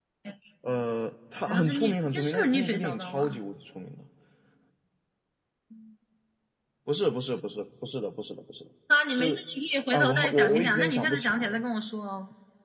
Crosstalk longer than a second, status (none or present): present